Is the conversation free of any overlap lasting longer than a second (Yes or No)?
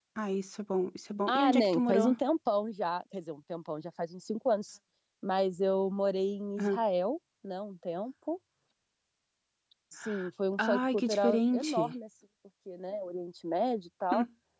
No